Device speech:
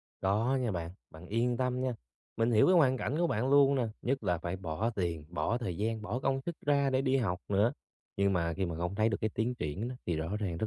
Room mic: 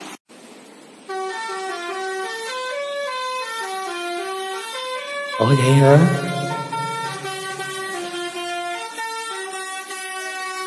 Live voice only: Ủa, vậy hả?

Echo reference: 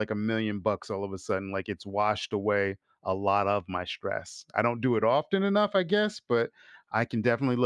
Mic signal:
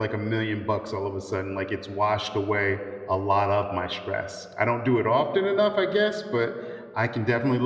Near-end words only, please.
none

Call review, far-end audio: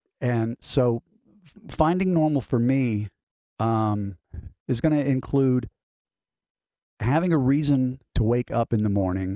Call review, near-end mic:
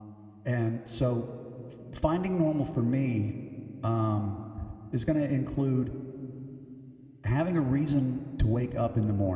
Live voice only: none

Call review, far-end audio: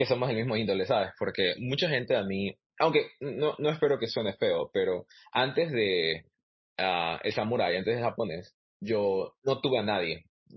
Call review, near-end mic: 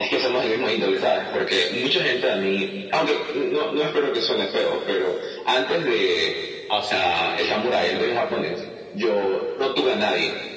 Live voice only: Ah, sí, sí, sí, sí, sí, a mí también.

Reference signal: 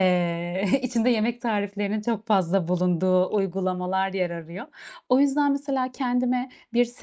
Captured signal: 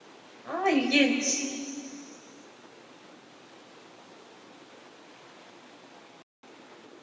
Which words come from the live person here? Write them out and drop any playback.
A, ilginç.

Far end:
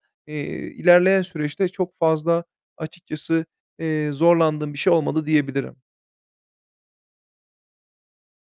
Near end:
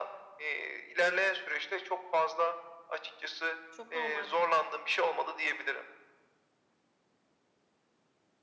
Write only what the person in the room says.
Çok normal.

